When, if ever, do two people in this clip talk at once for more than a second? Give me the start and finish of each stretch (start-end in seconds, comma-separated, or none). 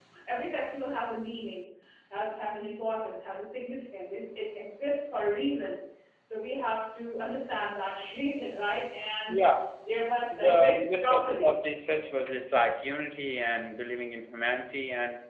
10.3-11.5